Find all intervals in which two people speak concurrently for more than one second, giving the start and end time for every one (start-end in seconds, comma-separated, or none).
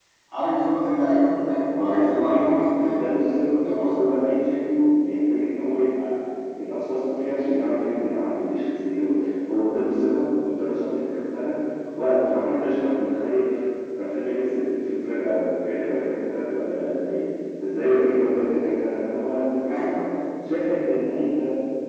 1.8-3.0